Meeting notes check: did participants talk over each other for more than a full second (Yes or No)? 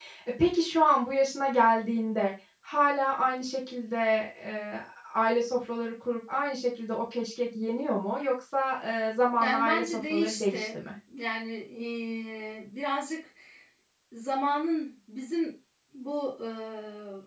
Yes